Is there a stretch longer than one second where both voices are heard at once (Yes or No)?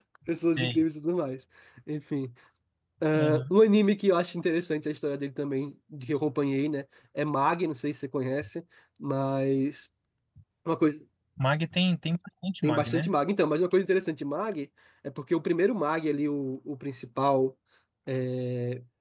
No